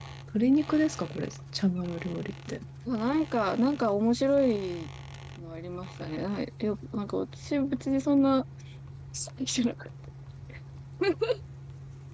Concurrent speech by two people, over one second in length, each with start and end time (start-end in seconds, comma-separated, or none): none